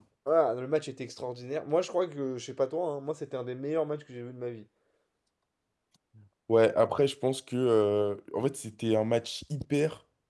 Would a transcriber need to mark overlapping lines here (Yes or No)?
No